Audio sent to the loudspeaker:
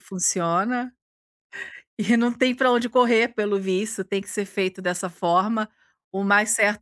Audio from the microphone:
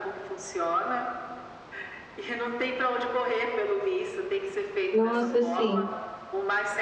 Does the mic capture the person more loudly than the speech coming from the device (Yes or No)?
Yes